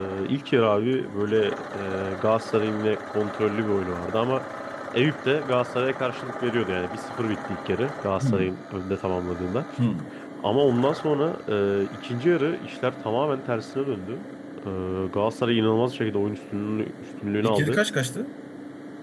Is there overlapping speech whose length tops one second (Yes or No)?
No